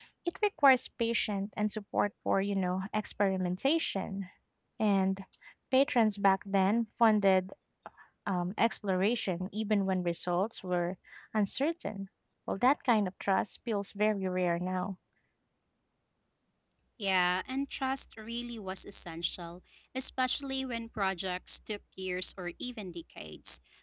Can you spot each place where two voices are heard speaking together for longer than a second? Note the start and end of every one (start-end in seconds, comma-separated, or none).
none